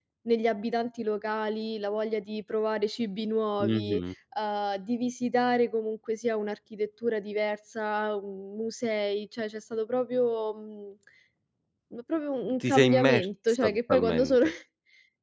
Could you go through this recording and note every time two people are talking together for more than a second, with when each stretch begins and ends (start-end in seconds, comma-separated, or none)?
12.6-14.4